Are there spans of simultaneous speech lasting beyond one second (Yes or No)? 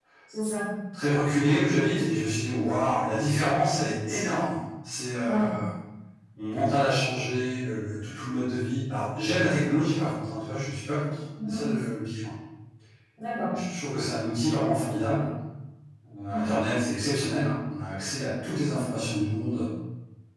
No